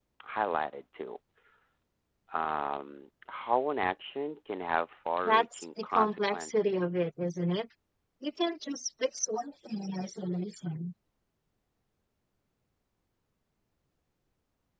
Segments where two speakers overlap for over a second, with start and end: 5.2-6.9

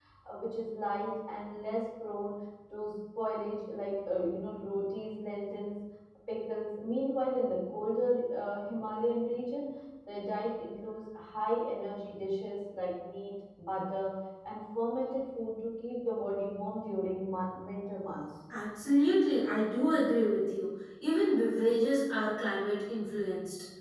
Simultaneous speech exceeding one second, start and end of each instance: none

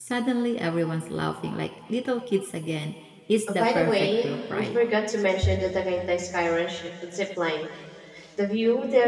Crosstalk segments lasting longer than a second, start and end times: 3.5-4.8

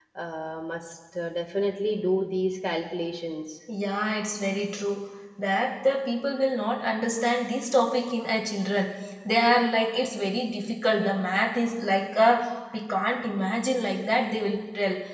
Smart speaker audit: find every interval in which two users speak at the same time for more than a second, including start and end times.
none

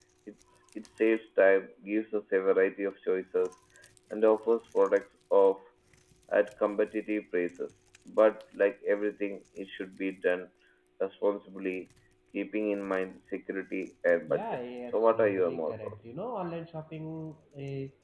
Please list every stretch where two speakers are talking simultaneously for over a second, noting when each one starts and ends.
14.3-15.9

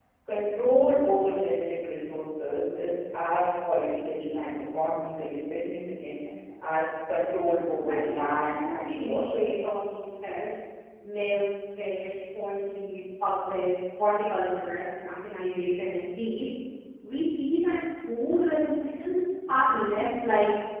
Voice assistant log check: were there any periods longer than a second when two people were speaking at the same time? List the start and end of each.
7.8-9.4

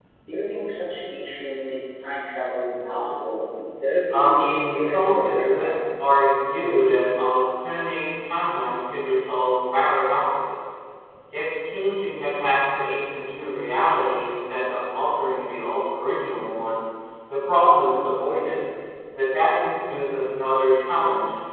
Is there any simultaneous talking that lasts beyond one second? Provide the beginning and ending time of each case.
4.1-5.8

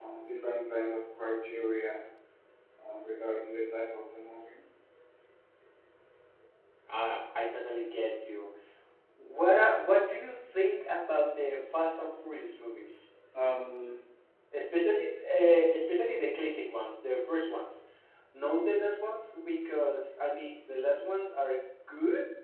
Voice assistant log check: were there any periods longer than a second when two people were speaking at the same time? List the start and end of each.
none

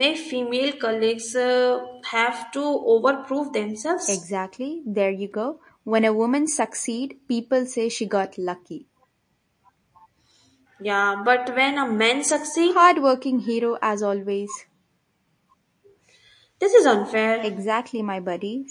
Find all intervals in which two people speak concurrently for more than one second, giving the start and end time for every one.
none

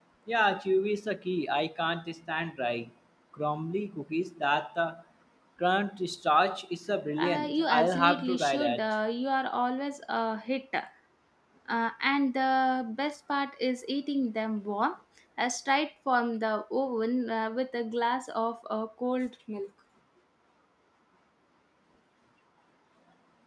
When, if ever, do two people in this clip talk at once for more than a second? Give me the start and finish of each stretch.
7.2-8.8

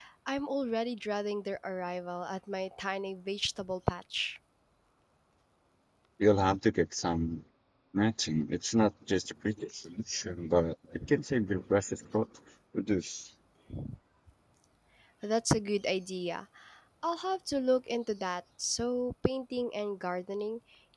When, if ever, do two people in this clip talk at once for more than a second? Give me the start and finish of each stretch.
none

